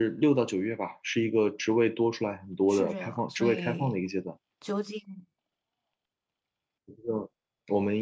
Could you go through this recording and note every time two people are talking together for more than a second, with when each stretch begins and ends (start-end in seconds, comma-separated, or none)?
2.7-4.0